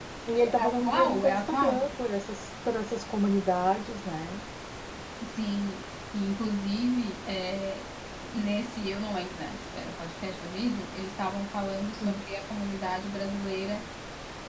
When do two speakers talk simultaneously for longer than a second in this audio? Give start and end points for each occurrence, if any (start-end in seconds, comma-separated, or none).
0.6-1.9